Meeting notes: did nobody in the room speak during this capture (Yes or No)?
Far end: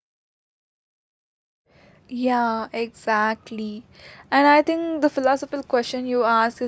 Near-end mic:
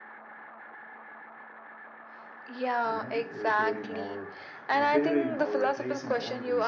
No